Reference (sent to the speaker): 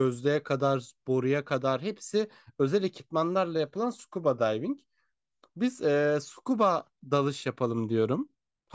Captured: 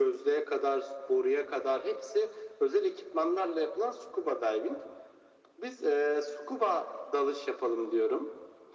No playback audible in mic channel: No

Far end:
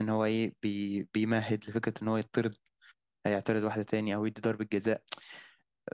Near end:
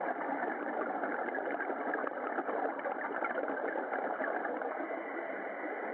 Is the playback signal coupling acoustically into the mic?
No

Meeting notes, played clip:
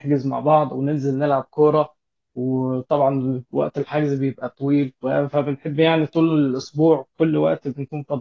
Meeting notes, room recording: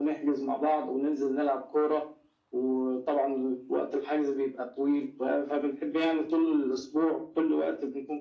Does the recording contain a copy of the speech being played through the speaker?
Yes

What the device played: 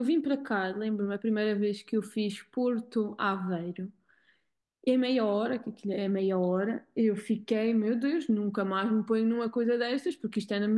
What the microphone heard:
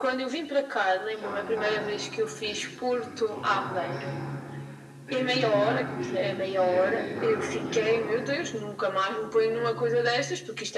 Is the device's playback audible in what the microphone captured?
Yes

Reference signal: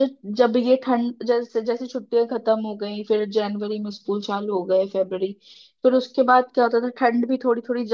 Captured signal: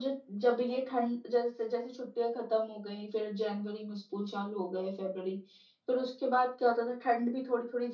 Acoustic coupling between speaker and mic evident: Yes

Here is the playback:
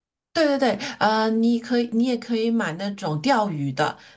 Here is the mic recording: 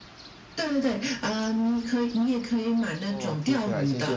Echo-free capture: No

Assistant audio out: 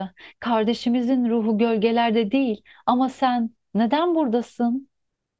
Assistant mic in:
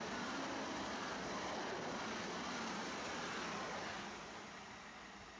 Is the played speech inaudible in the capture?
Yes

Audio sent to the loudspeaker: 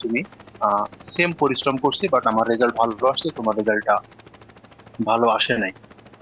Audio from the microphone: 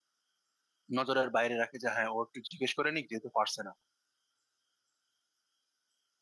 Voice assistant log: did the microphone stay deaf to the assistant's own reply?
Yes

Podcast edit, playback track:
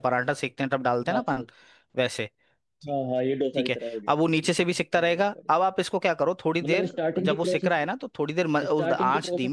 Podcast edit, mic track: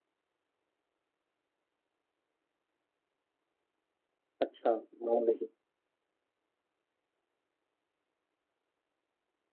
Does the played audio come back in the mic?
No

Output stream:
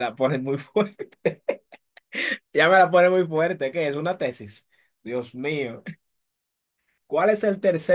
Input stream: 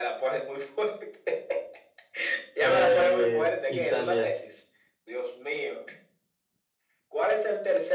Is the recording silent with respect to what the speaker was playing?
No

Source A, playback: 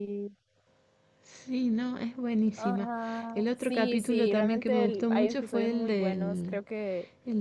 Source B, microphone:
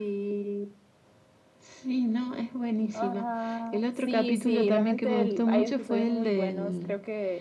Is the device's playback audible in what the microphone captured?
Yes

